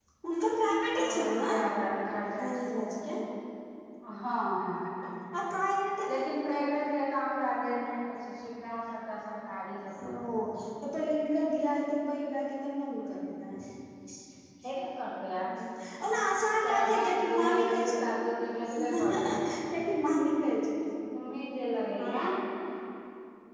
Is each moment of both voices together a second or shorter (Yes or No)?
No